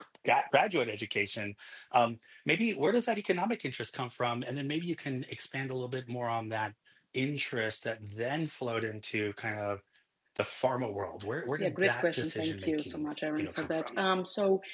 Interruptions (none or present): present